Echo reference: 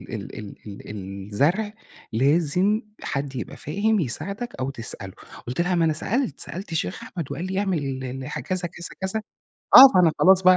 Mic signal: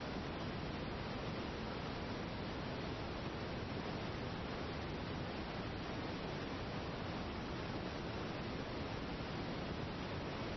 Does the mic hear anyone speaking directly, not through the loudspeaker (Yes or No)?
No